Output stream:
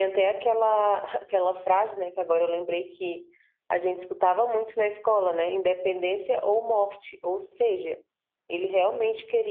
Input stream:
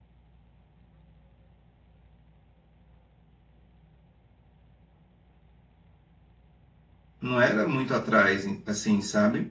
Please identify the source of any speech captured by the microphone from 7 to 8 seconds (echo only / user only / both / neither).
user only